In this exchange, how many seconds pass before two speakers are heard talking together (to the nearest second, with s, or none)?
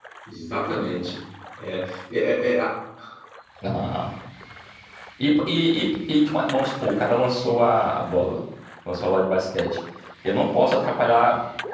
none